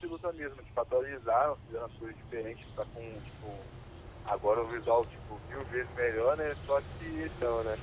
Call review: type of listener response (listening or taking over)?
listening